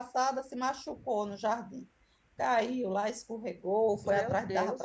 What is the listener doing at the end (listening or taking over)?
listening